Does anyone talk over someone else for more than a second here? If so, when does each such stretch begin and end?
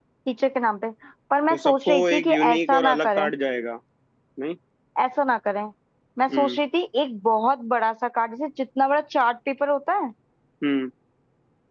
1.5-3.3

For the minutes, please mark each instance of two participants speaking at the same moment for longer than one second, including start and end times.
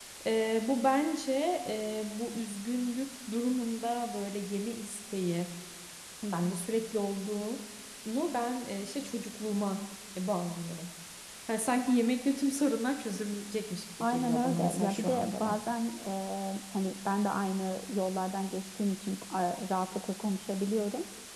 14.0-15.5

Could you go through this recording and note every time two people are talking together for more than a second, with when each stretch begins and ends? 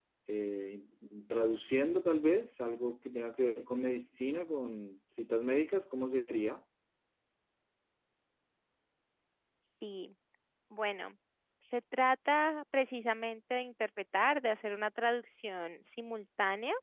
none

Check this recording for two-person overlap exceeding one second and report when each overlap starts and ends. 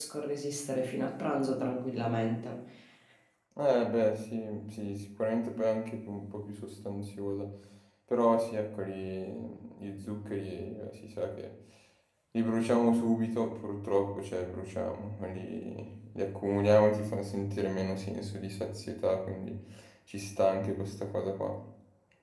none

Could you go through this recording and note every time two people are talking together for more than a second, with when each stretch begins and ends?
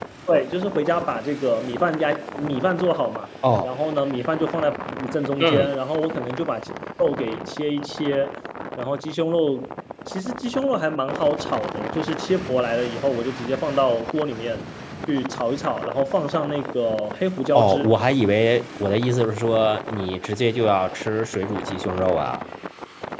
none

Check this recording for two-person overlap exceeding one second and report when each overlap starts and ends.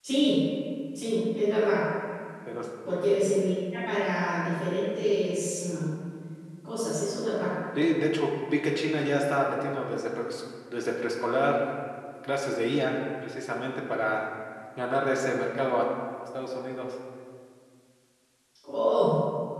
none

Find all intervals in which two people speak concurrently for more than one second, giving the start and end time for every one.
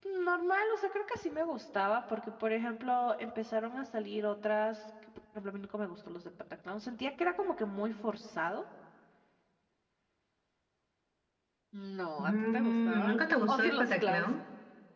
12.2-14.3

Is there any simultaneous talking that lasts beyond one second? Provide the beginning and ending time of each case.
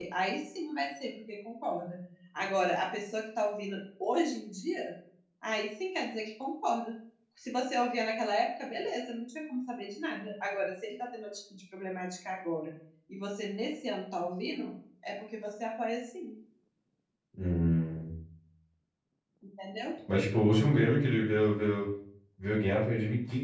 none

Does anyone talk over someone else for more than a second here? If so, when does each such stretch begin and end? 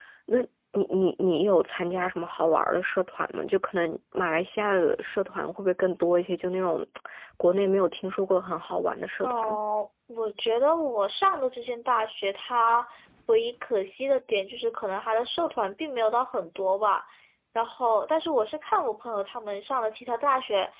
none

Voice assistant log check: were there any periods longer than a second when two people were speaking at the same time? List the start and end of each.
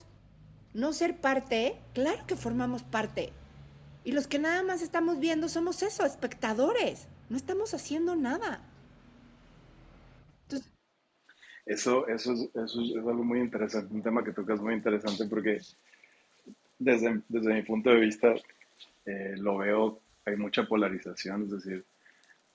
none

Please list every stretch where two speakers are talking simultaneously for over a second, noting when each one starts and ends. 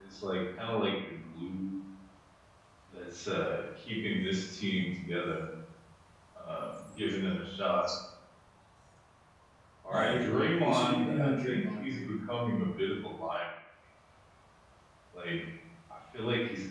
10.6-12.1

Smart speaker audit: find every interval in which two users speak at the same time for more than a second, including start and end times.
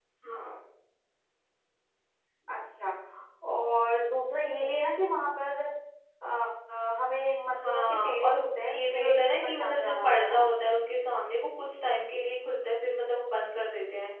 7.5-10.4

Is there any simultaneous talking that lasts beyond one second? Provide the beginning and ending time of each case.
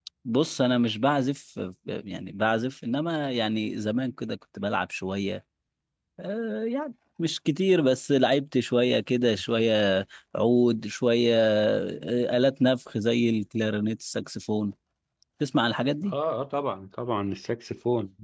none

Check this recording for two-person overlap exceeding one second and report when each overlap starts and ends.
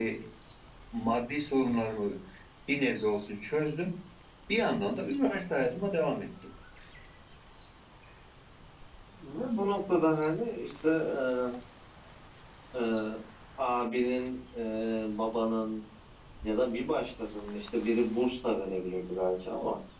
none

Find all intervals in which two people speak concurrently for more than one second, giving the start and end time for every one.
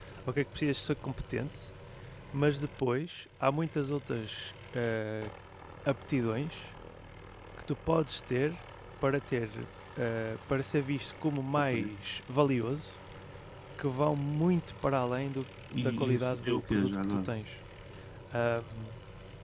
15.8-17.3

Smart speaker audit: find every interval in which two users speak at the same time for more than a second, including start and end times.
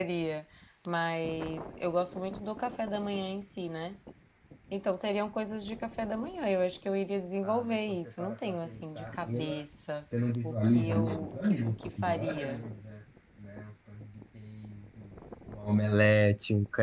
7.4-9.6, 10.4-12.6

